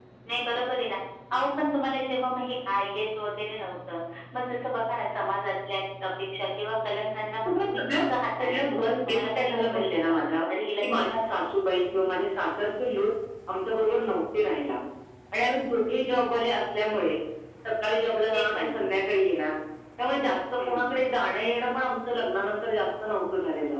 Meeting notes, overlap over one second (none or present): present